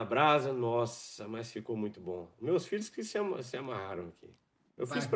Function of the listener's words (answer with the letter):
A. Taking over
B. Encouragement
A